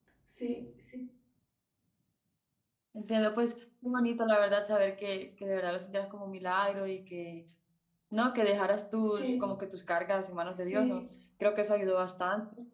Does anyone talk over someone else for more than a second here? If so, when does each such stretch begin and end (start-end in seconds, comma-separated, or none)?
none